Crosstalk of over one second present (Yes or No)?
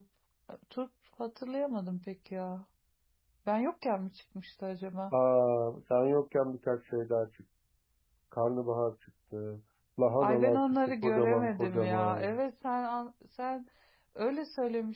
Yes